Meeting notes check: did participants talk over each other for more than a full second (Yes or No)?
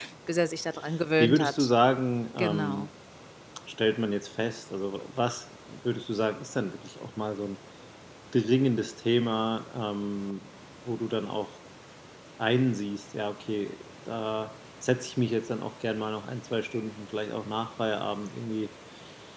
No